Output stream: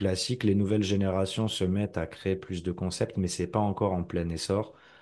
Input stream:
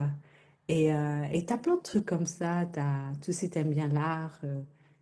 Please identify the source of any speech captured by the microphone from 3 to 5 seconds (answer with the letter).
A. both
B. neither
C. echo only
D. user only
D